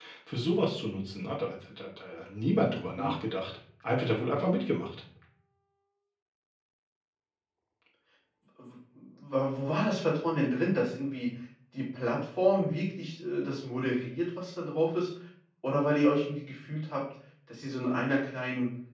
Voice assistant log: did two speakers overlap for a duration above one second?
No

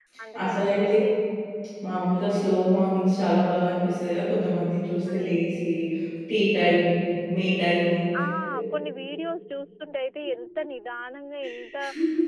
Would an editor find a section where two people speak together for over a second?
No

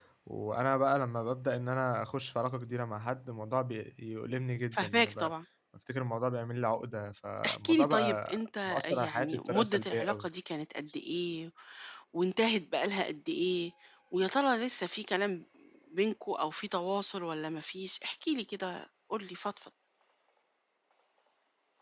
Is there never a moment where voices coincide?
No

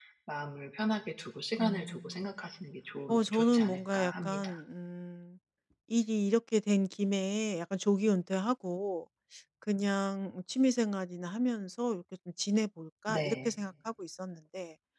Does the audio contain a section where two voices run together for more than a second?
Yes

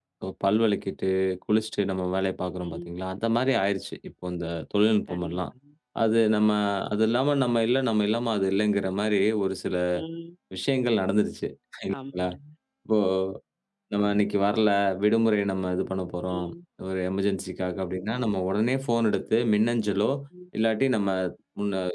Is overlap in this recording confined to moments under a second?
Yes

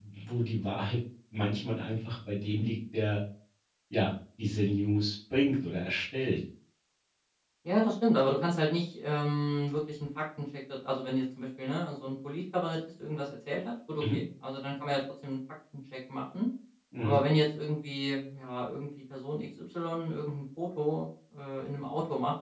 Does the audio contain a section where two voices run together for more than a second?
No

